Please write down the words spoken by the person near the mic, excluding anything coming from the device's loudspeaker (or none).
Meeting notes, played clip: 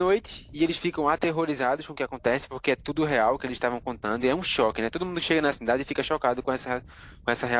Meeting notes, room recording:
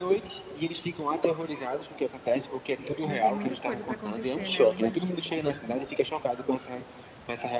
Ainda tem muita coisa pra acontecer, né? Eu imagino.